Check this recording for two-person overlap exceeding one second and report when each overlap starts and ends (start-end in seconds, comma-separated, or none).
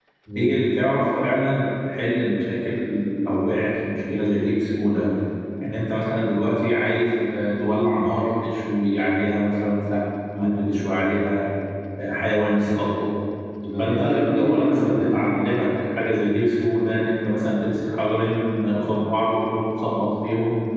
13.8-15.0